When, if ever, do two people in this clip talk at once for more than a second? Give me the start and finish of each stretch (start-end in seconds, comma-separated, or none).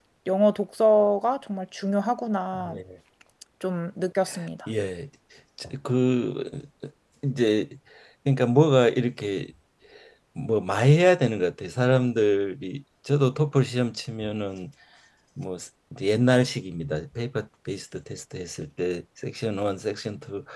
none